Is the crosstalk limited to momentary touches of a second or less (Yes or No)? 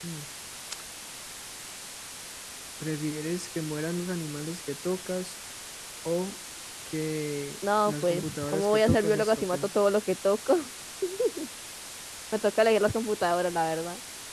No